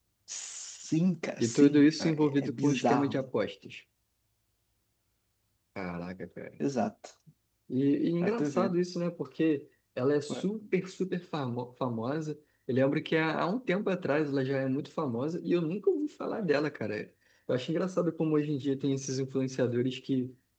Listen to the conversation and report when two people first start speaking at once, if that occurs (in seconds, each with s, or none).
1.4 s